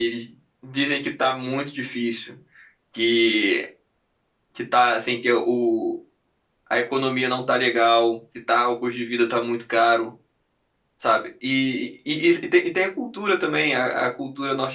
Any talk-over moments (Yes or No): No